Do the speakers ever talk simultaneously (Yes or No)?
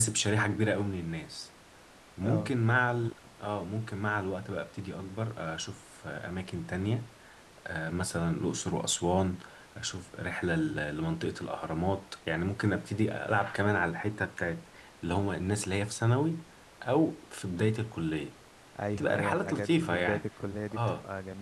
Yes